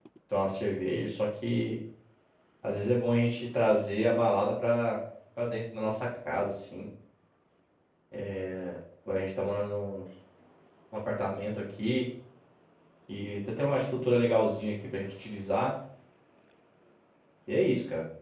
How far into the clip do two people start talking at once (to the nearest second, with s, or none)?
none